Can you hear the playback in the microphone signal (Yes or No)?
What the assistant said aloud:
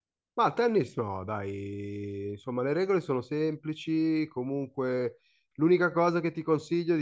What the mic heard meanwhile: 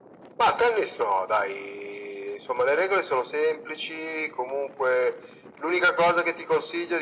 Yes